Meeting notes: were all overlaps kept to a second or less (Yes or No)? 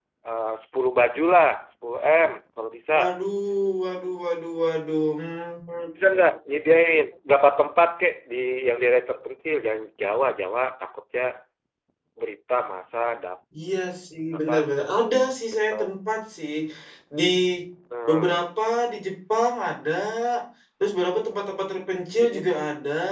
Yes